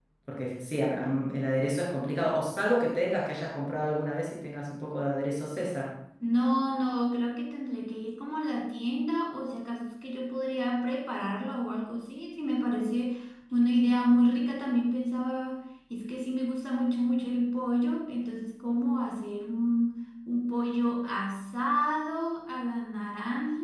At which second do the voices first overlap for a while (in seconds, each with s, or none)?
none